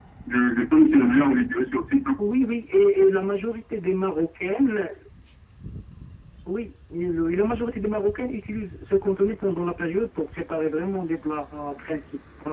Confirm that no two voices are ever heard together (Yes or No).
Yes